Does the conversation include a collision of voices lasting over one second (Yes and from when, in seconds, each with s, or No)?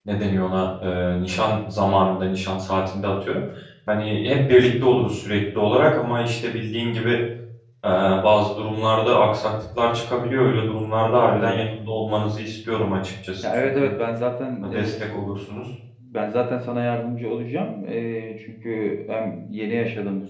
No